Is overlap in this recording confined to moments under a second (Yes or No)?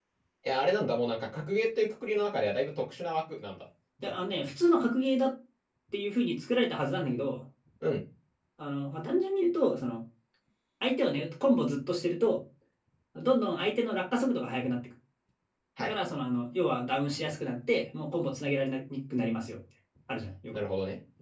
Yes